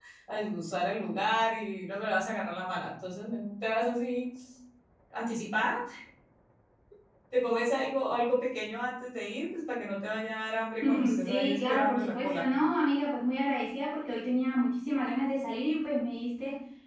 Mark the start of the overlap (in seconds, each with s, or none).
10.8 s